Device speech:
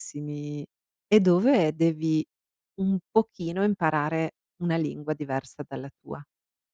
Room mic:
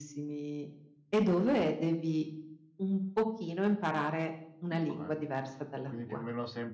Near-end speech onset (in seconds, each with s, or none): 4.7 s